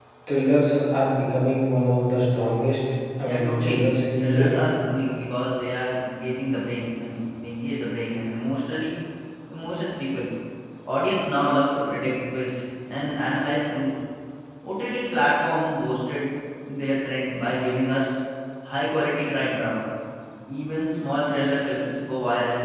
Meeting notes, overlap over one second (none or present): present